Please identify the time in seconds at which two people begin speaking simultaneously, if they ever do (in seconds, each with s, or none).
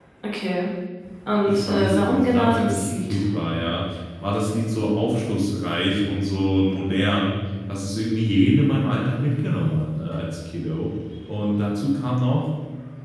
1.5 s